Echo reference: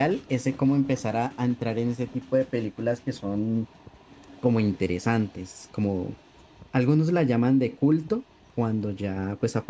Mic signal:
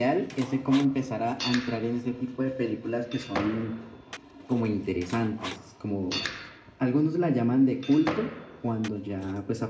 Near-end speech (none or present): none